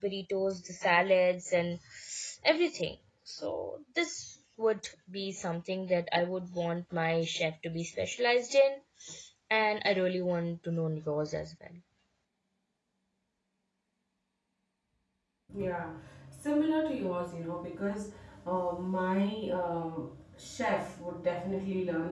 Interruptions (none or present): none